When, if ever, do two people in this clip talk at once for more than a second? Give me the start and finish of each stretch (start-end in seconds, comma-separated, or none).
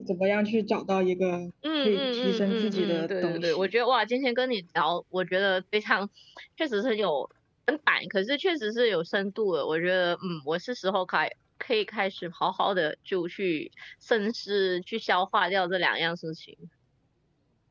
1.8-3.7